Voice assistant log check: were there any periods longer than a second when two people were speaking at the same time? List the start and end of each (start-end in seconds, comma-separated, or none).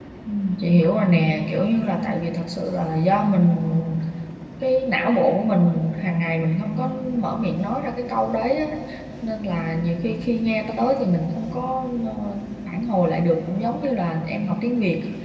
none